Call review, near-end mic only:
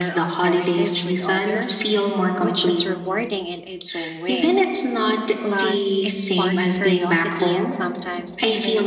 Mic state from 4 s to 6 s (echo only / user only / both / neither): both